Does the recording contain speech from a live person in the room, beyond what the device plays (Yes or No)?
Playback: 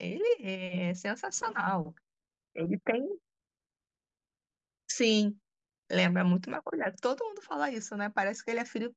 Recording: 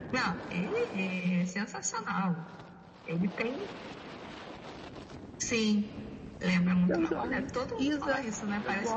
Yes